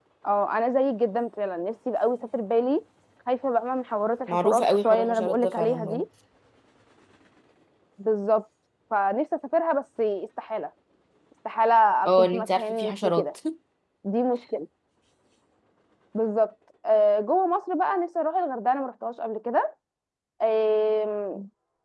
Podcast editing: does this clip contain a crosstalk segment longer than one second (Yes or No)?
Yes